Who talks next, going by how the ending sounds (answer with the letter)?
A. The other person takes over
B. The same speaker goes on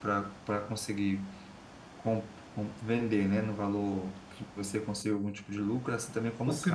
A